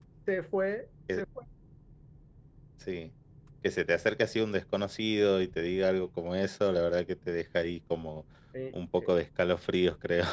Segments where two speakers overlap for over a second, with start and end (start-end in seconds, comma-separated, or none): none